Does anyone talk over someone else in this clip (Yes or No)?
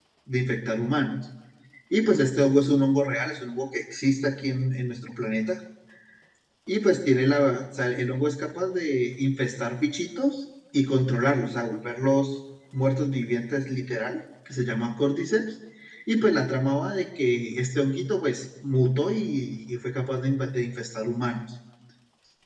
No